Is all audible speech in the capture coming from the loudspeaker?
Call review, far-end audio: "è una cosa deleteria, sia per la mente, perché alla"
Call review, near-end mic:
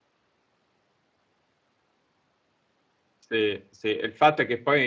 No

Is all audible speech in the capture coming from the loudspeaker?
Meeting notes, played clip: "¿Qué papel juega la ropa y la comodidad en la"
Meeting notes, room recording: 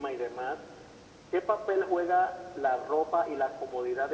Yes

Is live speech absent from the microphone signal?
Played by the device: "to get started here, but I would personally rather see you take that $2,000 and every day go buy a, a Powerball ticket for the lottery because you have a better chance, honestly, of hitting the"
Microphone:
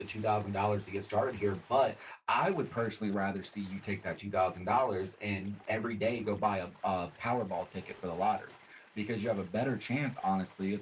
Yes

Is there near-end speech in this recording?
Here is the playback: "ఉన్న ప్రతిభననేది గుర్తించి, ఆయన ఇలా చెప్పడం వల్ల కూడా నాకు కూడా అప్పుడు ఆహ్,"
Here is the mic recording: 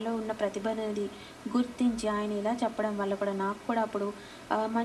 No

